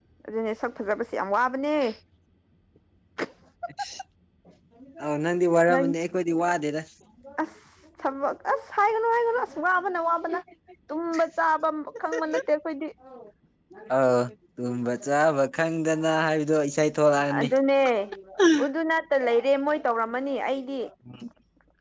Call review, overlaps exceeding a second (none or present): none